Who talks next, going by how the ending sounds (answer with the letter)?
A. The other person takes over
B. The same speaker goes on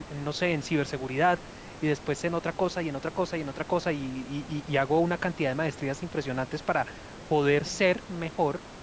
B